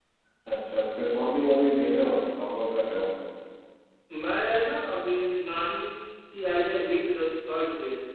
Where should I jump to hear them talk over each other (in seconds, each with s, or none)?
none